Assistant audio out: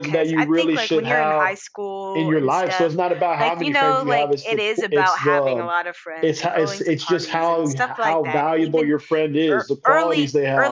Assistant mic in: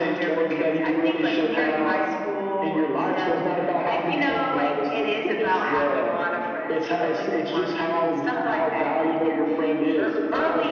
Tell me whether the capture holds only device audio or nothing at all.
Yes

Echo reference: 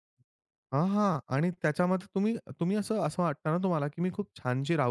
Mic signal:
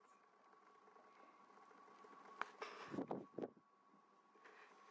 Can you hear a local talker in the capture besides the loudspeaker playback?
No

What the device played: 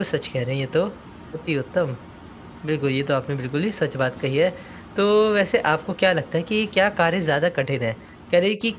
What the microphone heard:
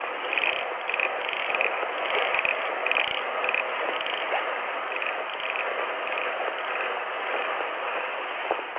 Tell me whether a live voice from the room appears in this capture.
No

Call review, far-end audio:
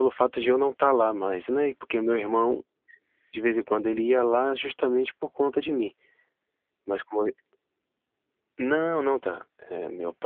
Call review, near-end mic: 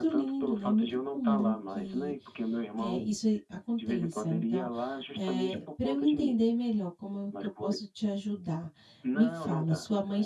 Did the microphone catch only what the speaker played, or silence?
No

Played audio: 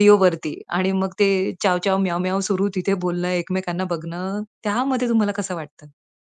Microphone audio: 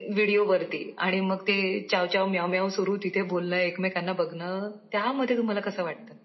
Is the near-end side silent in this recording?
Yes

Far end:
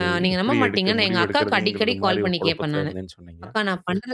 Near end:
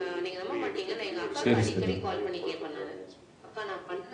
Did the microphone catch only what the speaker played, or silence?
No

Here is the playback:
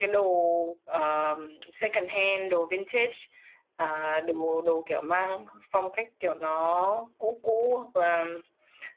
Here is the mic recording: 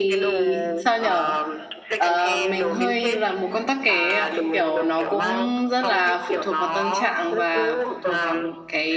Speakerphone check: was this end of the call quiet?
No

